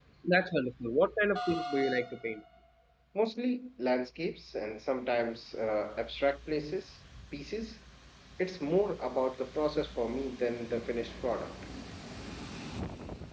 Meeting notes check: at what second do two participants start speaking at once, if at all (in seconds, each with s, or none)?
none